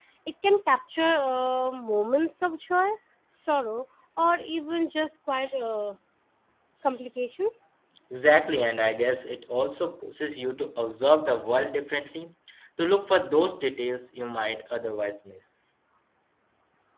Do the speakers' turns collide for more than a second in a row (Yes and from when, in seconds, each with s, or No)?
No